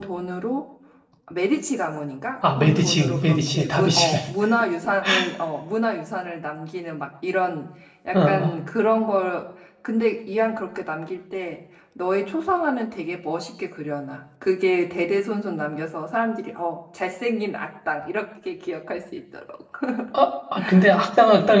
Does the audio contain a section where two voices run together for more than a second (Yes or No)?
Yes